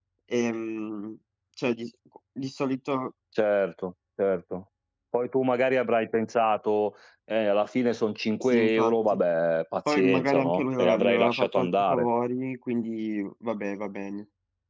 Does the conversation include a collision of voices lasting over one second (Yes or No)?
Yes